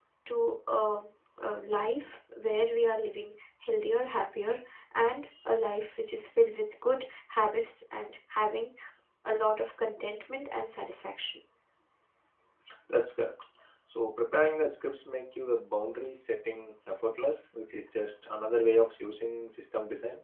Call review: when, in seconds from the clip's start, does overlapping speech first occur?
none

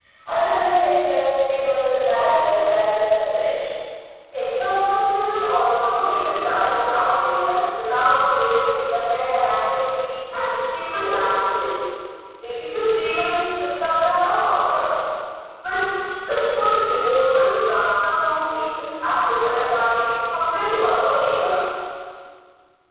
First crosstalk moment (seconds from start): none

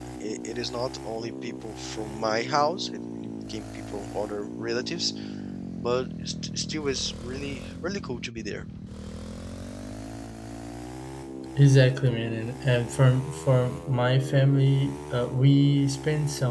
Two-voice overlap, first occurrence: none

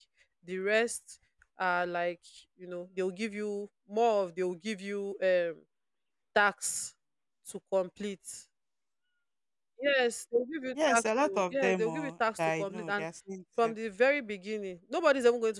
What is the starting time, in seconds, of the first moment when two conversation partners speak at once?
10.8 s

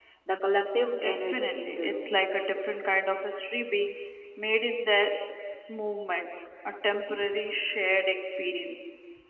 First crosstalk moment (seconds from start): 1.0 s

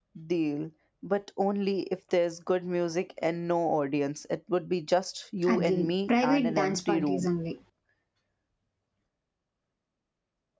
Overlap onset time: 5.4 s

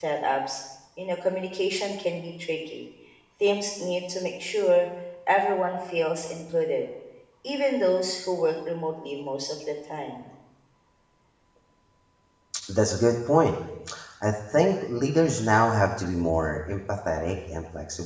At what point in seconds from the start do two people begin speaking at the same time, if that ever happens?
none

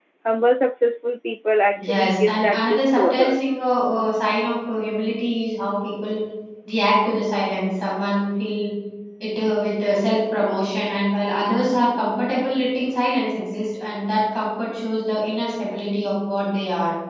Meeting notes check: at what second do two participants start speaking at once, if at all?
1.7 s

